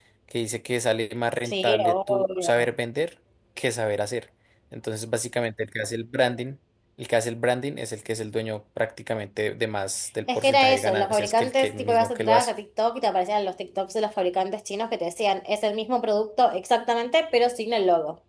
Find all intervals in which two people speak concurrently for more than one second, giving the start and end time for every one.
1.4-2.7, 10.3-12.5

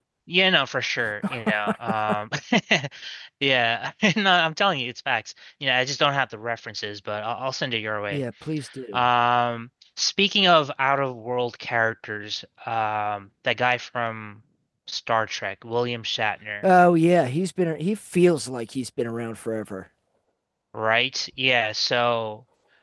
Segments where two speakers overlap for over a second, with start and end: none

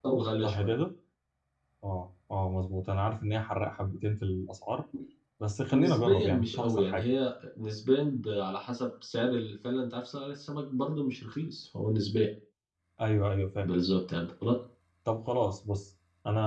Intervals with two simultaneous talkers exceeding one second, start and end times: 5.7-7.0

